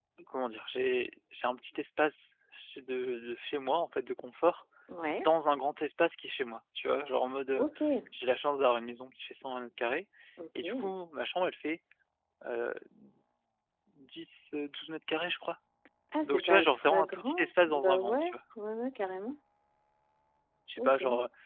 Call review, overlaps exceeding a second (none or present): present